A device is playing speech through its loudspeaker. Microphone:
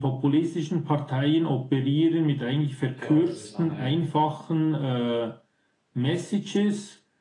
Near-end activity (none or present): present